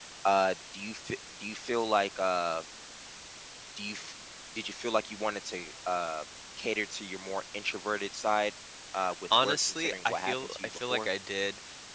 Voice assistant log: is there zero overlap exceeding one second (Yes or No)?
No